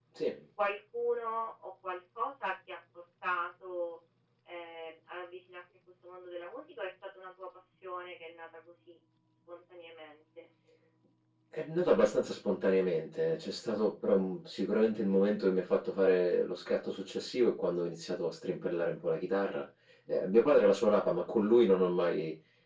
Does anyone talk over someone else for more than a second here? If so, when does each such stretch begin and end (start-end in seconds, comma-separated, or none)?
none